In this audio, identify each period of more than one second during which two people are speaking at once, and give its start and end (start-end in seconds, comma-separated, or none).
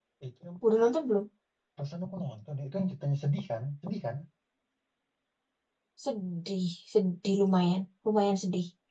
none